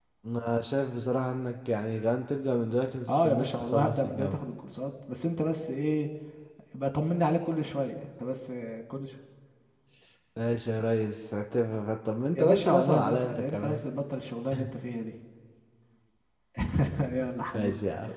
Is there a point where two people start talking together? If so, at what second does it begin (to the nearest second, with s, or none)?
3 s